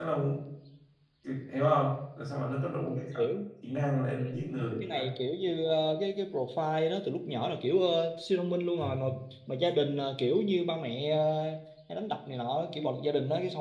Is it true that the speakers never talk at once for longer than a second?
Yes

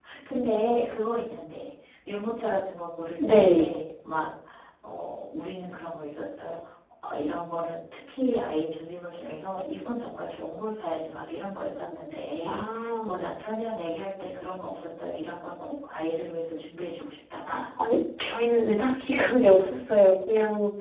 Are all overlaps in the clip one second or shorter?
Yes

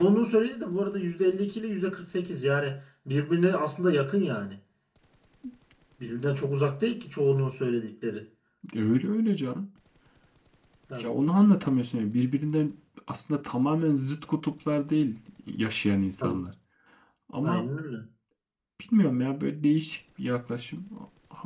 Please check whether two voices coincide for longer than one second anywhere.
No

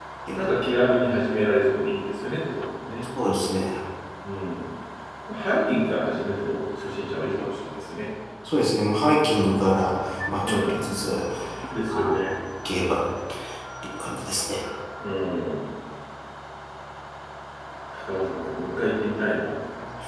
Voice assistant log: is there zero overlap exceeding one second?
Yes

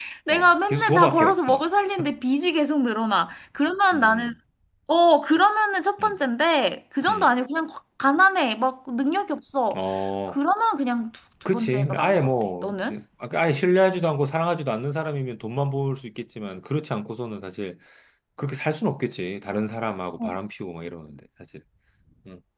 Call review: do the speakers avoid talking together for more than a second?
No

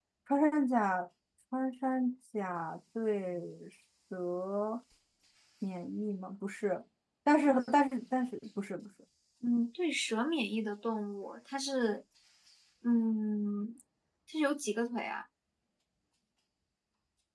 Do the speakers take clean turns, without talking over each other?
Yes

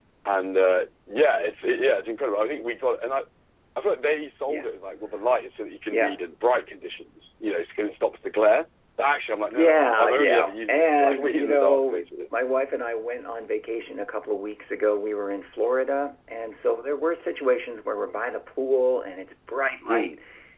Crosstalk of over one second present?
Yes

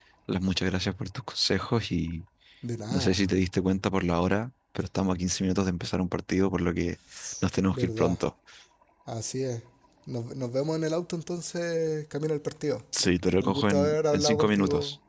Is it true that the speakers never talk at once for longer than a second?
No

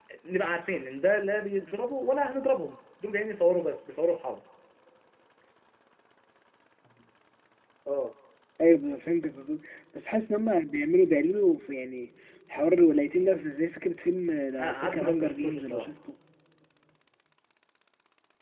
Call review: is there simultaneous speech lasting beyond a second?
Yes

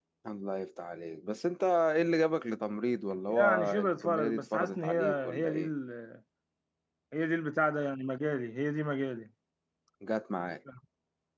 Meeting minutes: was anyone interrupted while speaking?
Yes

